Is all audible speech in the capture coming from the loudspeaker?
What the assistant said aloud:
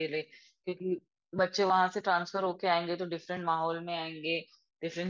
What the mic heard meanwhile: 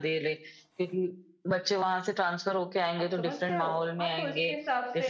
No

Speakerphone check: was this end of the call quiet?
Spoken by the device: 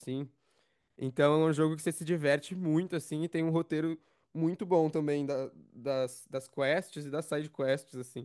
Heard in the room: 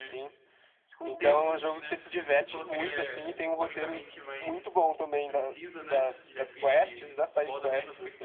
No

